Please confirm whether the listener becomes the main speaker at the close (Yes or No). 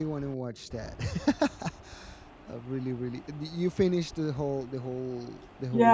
Yes